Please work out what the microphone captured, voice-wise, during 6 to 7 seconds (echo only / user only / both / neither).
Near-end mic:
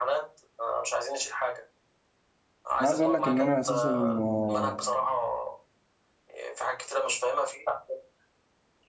echo only